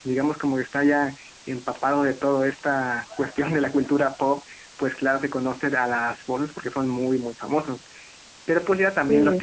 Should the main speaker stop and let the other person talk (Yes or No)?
No